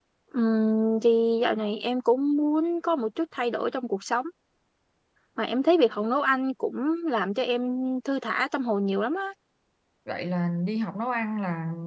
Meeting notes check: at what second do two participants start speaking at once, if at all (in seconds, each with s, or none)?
none